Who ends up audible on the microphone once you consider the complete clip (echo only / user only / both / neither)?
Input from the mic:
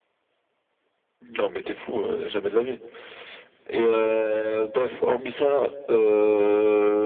echo only